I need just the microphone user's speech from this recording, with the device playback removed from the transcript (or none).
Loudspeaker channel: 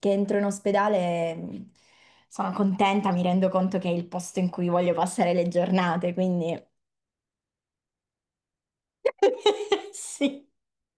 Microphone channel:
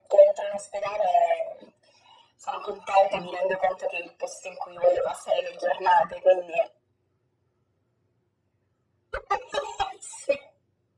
none